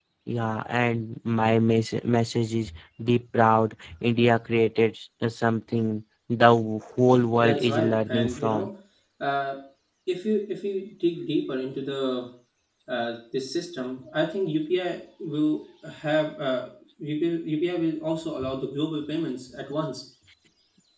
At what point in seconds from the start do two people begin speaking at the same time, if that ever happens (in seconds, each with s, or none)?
7.4 s